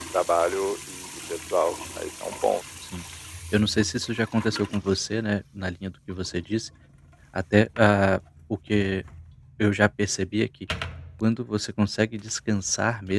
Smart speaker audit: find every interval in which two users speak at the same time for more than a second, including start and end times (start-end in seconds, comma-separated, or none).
none